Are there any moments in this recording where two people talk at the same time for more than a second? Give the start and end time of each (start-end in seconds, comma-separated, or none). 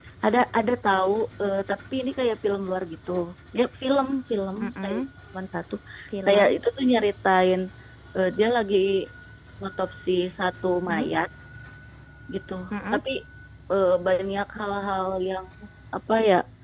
none